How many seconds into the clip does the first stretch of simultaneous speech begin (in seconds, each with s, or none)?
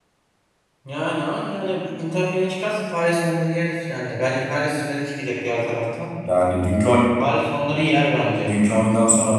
none